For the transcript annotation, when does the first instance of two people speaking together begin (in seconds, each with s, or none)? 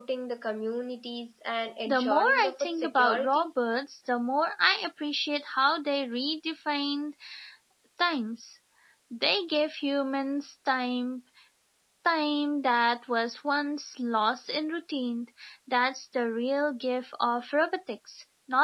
1.9 s